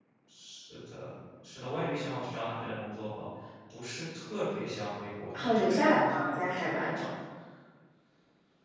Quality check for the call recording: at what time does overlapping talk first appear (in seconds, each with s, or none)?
5.2 s